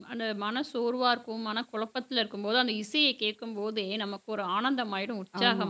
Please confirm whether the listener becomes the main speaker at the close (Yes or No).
Yes